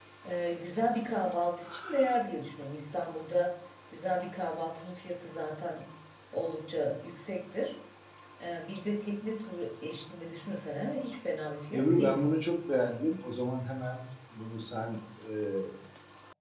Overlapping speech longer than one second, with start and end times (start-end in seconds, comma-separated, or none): none